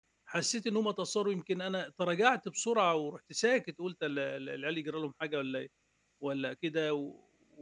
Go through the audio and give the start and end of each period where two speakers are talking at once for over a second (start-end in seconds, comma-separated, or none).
none